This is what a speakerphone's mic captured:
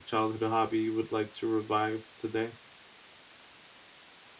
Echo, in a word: none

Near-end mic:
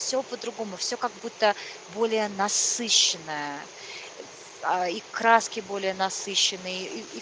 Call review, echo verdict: none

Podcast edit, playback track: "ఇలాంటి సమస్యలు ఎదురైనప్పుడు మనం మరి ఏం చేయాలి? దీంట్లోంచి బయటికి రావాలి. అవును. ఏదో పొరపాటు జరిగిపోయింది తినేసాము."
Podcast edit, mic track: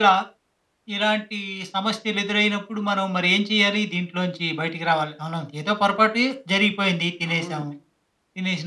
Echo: present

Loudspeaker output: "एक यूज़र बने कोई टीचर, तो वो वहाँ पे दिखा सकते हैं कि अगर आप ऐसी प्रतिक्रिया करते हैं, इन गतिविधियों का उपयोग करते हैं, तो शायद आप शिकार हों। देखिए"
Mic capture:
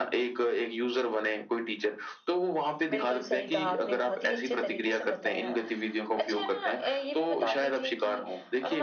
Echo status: present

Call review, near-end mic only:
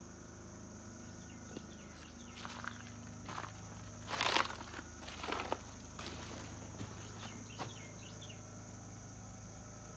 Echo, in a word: none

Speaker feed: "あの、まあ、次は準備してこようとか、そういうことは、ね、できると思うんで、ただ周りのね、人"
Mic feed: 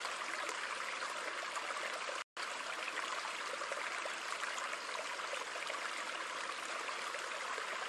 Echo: none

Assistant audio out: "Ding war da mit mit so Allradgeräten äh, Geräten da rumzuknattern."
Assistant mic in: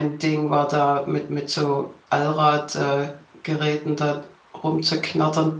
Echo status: present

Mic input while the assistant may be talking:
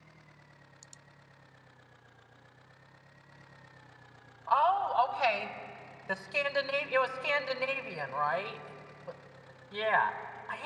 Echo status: none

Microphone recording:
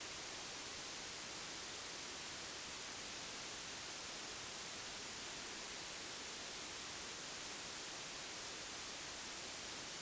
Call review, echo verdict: none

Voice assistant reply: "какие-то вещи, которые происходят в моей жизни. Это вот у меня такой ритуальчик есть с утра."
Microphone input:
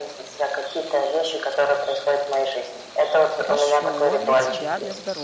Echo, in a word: present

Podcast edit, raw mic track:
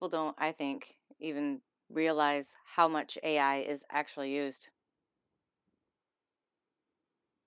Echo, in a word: none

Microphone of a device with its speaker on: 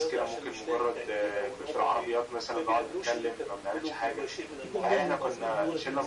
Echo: present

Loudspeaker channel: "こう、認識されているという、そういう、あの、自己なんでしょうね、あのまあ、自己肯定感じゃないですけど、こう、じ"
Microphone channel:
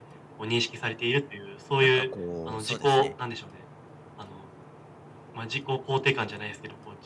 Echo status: present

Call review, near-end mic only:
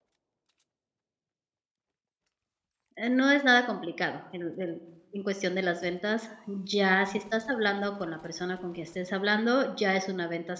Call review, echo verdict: none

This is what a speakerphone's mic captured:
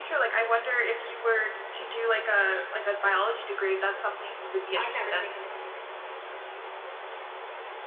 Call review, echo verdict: present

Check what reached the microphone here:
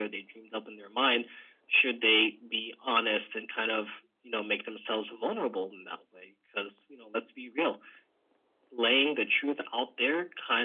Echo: present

